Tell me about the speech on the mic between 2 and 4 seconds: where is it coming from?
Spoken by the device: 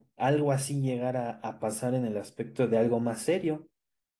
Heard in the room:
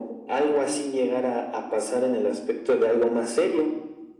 echo only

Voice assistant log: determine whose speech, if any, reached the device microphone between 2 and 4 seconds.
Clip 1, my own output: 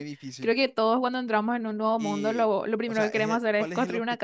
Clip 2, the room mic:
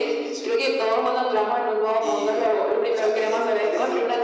echo only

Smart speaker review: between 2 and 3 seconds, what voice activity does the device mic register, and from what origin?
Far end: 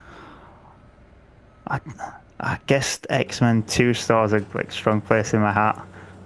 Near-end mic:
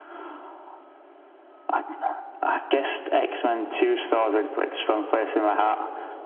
echo only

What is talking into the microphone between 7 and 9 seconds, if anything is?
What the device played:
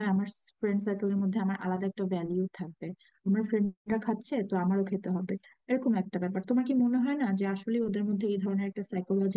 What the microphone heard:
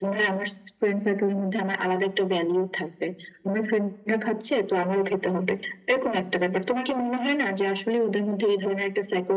echo only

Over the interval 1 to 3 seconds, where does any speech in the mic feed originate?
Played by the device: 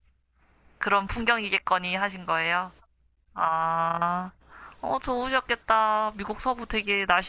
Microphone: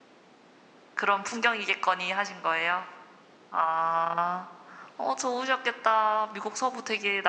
echo only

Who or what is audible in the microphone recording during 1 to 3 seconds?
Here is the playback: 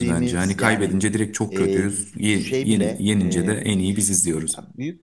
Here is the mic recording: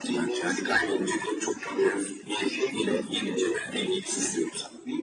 echo only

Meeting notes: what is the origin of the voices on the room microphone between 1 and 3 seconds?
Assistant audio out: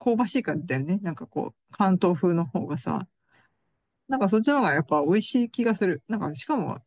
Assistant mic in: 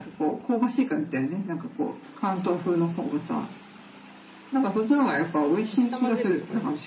echo only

